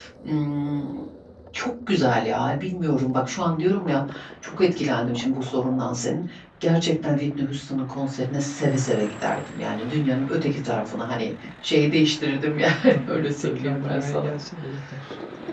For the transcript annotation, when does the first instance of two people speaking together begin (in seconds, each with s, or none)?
13.1 s